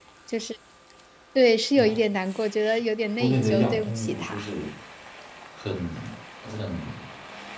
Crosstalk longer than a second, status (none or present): present